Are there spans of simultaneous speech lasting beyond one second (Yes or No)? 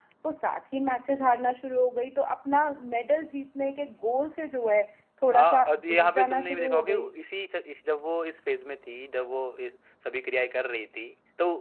Yes